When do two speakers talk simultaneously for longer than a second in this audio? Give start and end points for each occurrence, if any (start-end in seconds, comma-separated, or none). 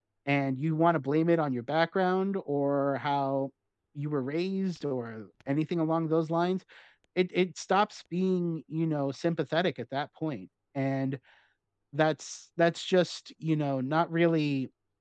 none